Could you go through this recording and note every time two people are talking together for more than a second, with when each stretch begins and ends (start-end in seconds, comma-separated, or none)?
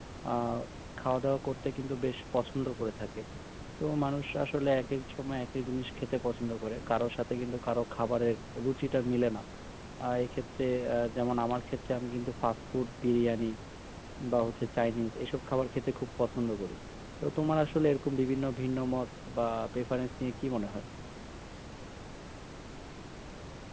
none